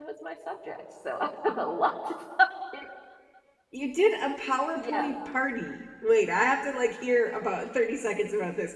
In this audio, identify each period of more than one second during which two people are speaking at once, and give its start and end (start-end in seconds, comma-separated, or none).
none